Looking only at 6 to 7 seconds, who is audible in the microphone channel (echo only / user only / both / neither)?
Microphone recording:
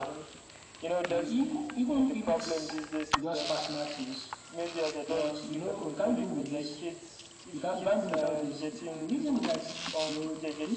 echo only